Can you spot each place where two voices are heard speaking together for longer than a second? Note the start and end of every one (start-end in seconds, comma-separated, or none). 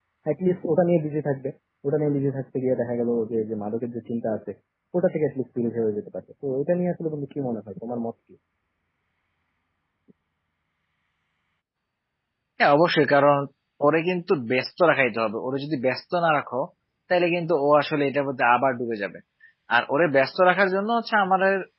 none